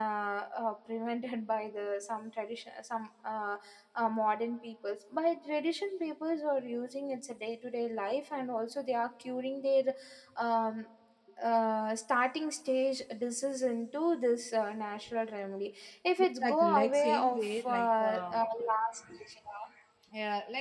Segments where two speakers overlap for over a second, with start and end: 16.2-18.4

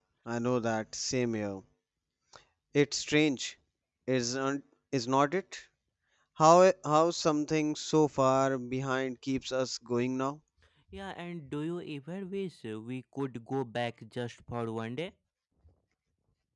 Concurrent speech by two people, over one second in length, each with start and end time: none

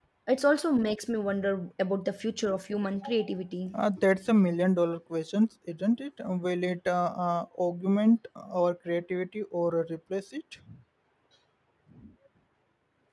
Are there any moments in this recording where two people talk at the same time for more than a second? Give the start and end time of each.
none

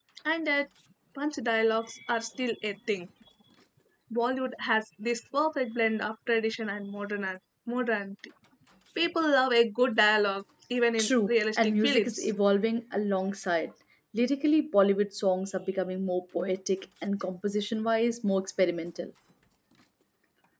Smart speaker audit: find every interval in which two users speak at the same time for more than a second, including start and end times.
11.0-12.2

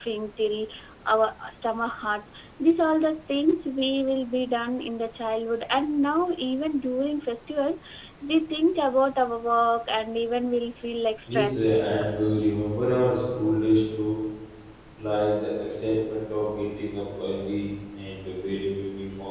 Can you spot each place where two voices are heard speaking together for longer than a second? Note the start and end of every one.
none

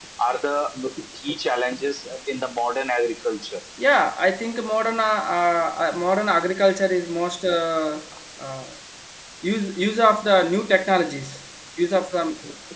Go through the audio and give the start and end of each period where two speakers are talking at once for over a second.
none

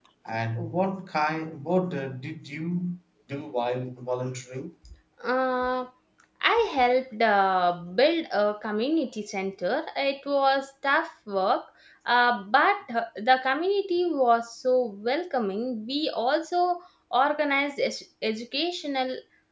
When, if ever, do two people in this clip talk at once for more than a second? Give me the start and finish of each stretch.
none

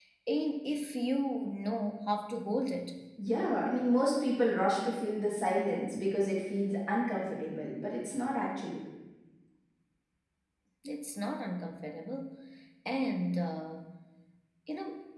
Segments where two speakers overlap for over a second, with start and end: none

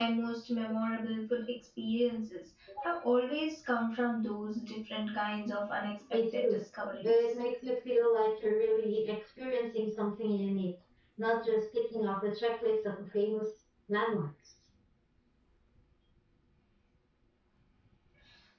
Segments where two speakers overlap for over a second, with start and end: none

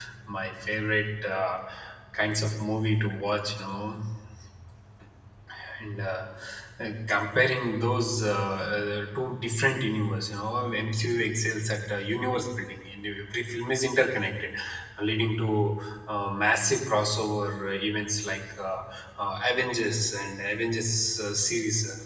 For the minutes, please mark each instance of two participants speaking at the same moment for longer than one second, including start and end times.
none

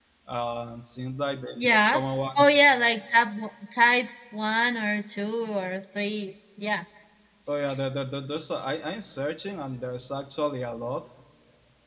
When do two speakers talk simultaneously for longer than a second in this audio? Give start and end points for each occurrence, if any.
none

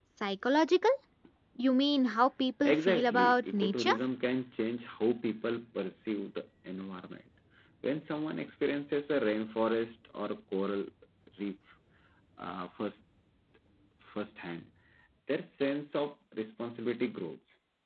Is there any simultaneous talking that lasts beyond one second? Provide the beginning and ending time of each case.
2.6-4.0

